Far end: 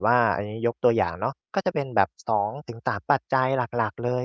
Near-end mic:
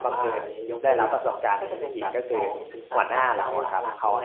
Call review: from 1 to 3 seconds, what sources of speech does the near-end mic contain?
both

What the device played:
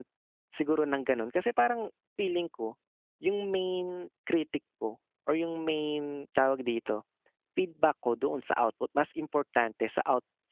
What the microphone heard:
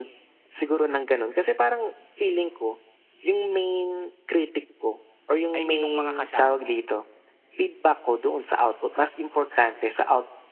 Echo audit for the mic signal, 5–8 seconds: both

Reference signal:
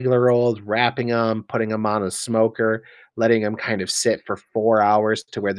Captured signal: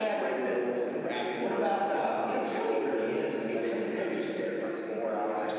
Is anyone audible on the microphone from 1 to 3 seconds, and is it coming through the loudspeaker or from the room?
both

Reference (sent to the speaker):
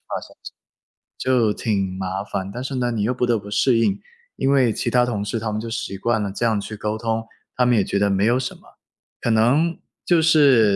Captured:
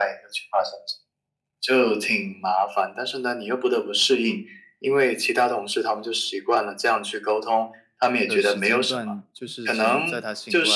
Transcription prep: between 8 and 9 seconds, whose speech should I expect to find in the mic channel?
both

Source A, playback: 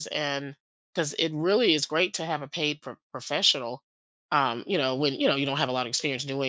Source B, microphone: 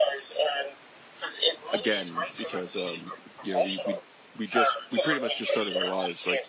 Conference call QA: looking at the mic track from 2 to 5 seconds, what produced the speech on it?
both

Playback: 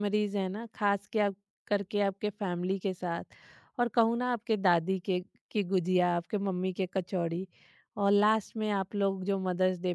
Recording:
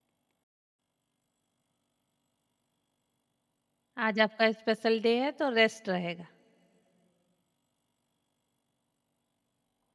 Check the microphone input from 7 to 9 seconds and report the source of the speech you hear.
neither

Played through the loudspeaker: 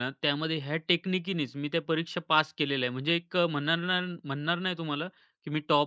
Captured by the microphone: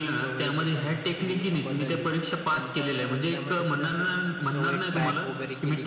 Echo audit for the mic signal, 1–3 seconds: both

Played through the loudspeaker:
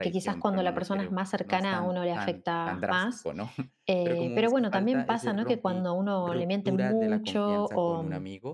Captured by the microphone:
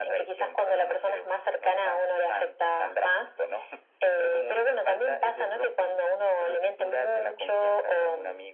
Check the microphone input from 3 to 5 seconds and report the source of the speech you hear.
echo only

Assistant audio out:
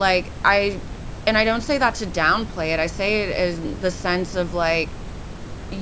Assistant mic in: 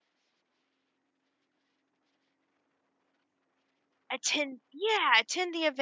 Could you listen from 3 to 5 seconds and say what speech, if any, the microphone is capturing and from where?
user only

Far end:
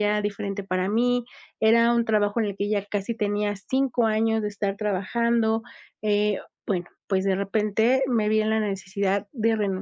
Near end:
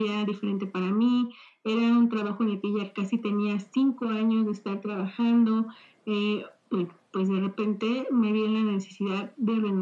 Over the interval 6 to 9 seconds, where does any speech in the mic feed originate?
echo only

